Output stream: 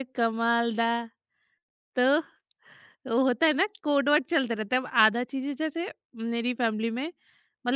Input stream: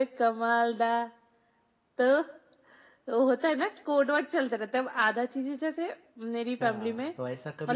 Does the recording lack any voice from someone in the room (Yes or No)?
No